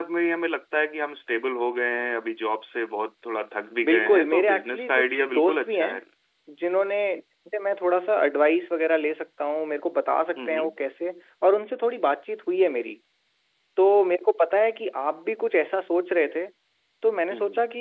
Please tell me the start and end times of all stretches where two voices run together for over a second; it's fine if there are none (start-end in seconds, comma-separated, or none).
3.9-6.0